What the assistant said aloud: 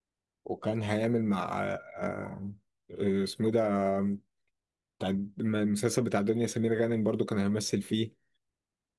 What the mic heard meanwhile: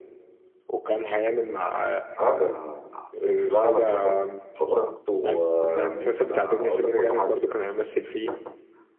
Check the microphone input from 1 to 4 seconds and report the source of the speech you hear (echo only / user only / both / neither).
both